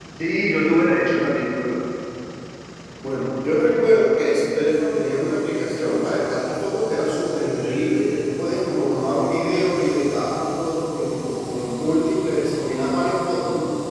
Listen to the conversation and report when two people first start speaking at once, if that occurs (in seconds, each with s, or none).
none